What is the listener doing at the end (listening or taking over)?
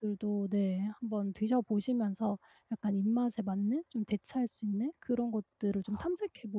listening